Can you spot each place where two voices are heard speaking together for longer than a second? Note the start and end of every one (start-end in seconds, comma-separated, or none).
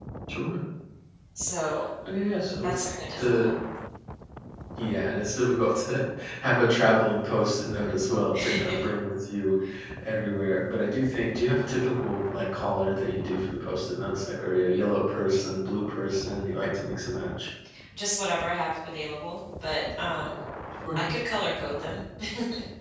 none